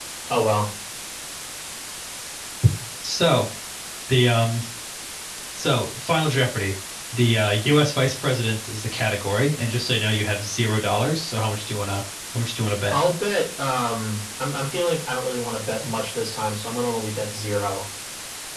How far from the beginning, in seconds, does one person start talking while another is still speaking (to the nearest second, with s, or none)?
none